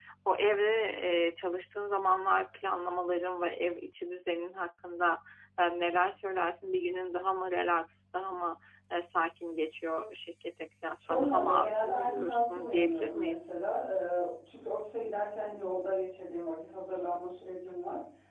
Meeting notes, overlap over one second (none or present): present